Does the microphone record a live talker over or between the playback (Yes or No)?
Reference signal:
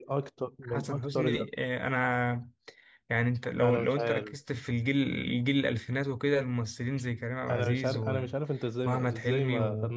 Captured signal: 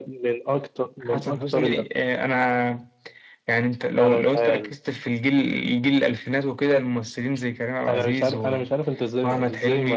No